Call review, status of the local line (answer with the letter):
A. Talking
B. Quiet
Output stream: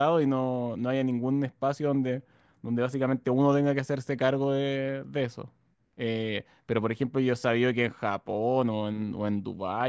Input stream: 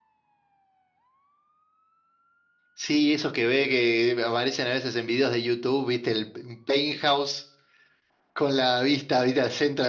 A